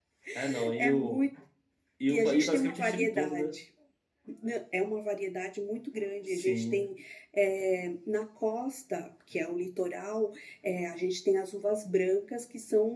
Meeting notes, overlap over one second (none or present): present